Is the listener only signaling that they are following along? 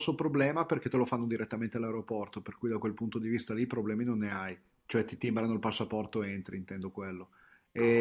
Yes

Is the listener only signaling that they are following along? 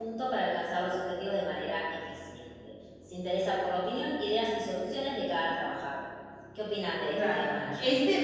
No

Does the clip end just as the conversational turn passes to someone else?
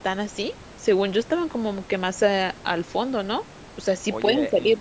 Yes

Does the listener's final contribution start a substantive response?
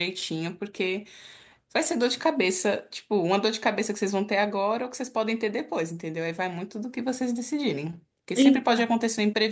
No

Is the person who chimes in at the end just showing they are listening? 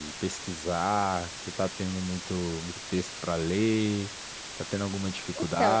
No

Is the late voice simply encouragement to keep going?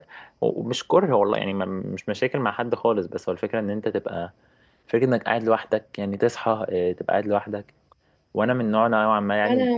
No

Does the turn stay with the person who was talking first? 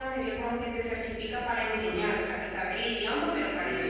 No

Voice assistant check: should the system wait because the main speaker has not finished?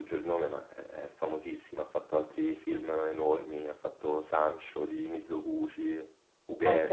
No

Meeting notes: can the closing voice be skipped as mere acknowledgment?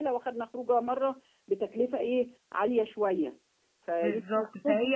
No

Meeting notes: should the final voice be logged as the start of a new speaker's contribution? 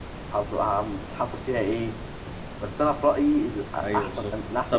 Yes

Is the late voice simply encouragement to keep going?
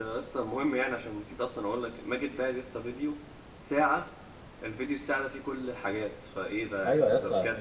No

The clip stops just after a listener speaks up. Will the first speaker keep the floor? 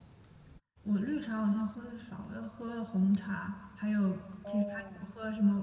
Yes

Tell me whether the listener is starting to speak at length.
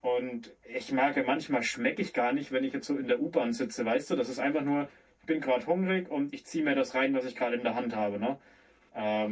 No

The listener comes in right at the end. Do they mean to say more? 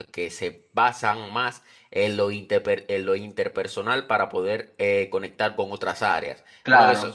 No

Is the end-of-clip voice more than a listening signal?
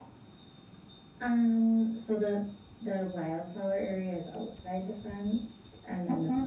No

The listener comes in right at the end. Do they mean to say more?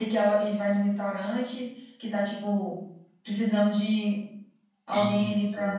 Yes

